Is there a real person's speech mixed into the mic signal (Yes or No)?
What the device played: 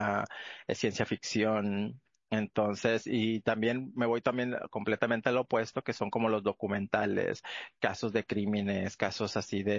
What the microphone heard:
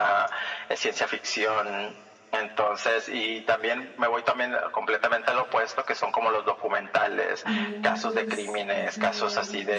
Yes